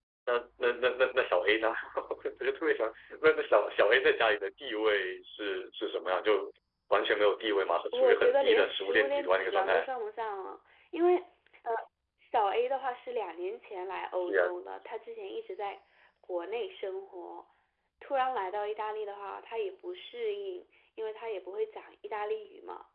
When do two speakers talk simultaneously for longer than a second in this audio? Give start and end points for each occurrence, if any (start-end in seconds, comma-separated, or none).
7.9-9.9